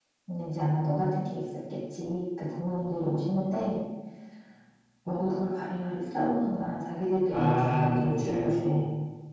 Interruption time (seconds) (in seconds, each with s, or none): 7.3 s